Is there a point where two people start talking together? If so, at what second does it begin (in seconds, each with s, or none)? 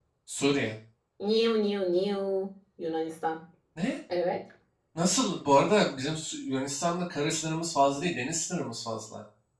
none